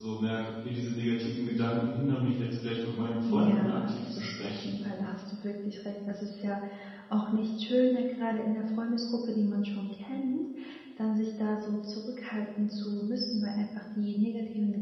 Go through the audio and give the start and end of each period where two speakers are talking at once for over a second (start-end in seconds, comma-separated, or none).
3.3-4.8